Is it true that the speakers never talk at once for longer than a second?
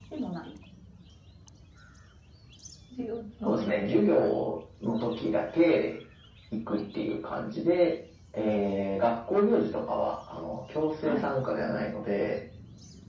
Yes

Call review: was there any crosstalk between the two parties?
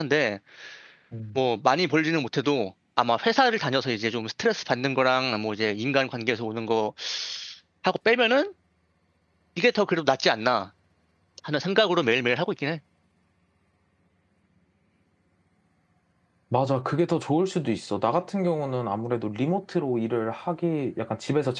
No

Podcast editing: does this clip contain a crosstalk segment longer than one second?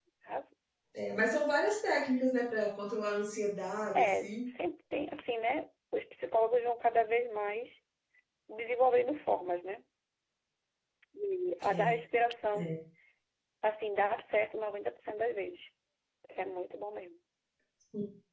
No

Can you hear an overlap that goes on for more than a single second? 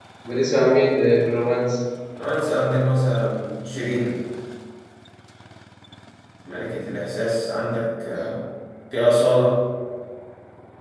No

